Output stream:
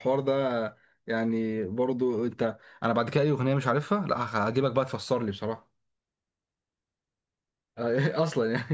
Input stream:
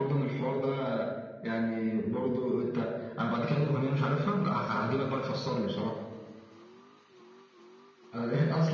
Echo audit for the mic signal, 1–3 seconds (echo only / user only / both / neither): echo only